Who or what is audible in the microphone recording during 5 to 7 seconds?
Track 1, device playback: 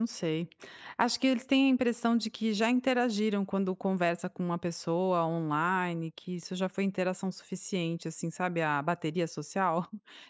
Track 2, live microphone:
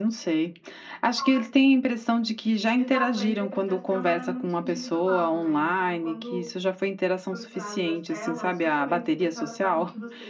both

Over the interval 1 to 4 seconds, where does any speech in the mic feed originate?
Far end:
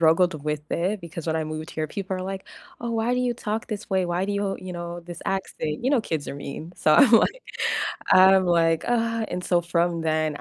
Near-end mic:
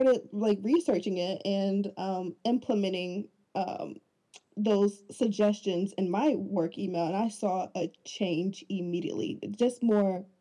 user only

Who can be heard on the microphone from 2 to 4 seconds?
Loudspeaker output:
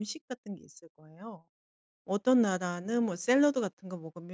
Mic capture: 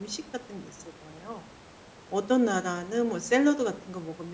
echo only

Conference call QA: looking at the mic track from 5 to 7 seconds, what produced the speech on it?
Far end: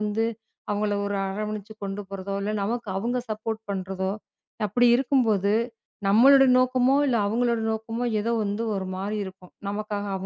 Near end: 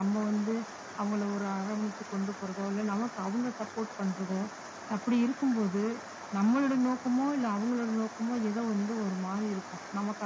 echo only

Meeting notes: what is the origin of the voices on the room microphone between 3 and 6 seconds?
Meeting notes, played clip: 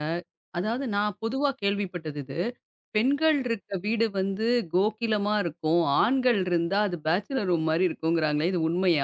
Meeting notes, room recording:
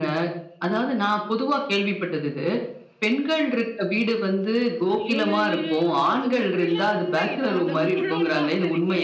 both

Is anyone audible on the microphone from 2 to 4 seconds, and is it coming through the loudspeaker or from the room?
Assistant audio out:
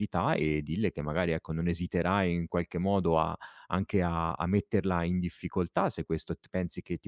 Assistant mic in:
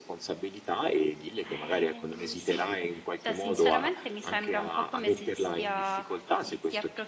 both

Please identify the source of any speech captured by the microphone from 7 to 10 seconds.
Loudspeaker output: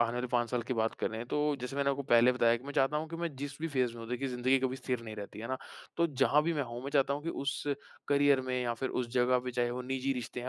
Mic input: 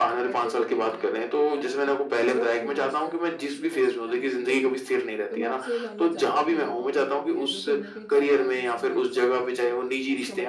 both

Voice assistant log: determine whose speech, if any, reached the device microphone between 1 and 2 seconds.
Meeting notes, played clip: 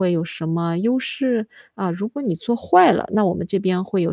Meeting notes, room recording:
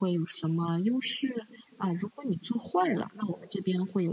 echo only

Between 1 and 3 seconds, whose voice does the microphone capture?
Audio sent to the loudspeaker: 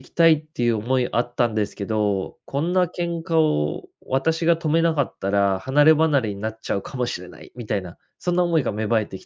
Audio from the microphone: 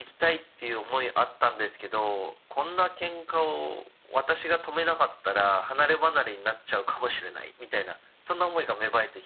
echo only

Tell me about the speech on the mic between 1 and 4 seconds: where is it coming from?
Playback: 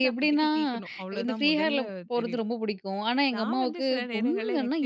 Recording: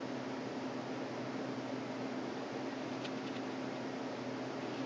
neither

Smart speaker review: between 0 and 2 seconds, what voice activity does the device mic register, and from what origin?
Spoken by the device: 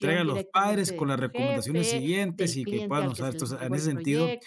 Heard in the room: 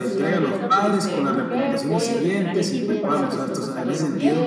both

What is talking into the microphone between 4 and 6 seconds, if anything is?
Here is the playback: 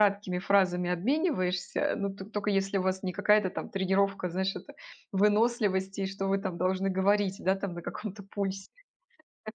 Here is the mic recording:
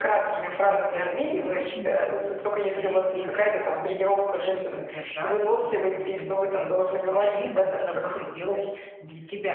both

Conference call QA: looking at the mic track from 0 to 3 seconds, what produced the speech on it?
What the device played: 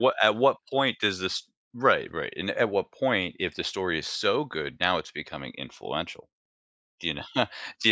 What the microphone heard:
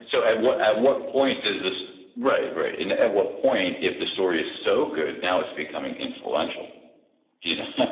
echo only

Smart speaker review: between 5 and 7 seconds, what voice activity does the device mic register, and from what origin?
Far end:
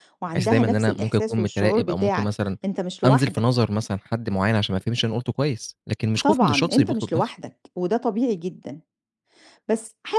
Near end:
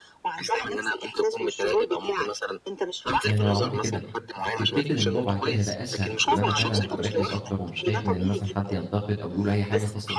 both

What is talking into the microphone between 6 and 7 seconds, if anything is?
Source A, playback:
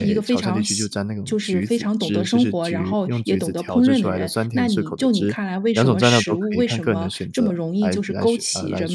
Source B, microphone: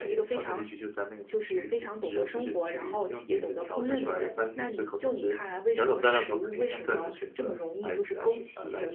echo only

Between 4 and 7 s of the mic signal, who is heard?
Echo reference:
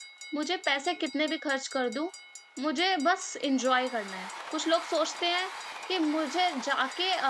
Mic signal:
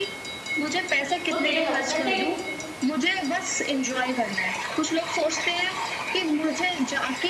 echo only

